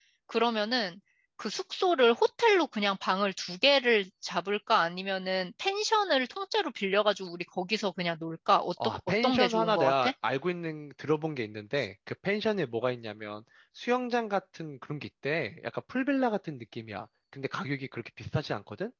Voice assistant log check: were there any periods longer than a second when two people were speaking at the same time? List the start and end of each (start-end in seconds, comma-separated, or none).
8.8-10.1